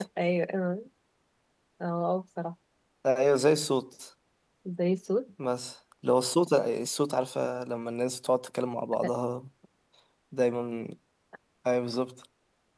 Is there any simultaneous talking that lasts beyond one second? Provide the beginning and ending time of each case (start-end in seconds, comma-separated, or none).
none